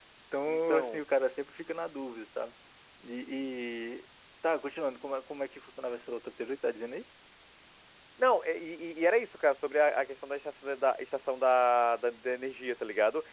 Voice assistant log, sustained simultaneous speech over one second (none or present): none